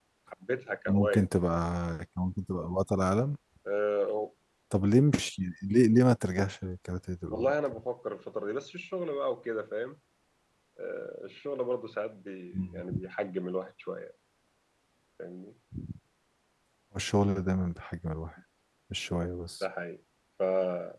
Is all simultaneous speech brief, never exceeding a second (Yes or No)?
Yes